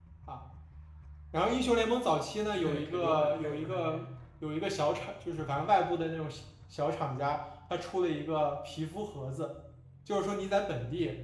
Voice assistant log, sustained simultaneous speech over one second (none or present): present